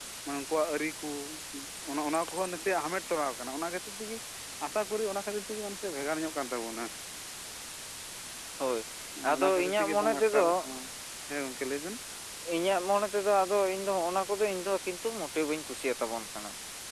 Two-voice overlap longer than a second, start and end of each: 9.4-10.7

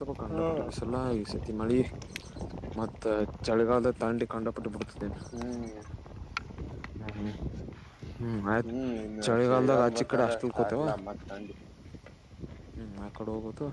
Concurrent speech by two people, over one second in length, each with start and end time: 9.3-10.8

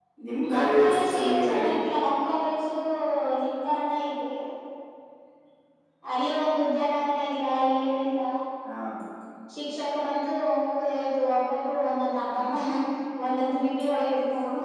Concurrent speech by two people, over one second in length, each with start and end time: 0.5-1.7

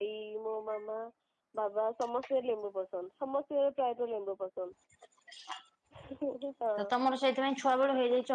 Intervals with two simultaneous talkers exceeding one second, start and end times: none

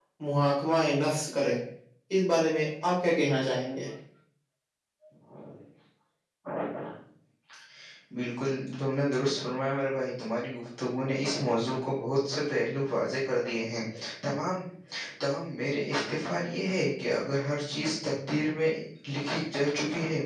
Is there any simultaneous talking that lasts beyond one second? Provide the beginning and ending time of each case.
none

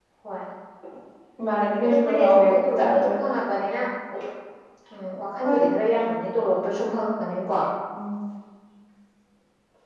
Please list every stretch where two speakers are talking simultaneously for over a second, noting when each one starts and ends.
1.8-3.2

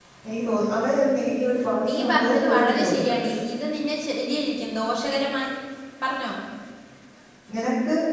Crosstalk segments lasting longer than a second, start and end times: 1.9-3.3

